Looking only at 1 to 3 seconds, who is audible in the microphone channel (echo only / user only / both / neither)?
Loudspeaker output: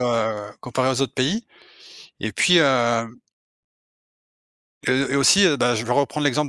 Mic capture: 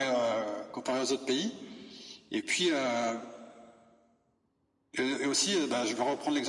echo only